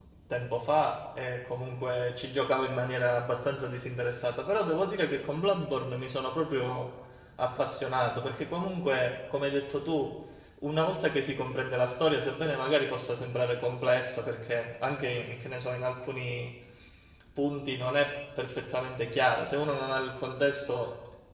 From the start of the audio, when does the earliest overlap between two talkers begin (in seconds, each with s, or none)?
none